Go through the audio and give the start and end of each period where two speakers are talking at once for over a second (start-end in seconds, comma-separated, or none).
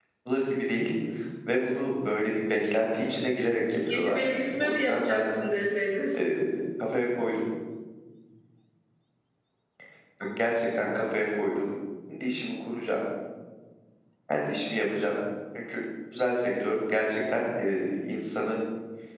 3.9-5.2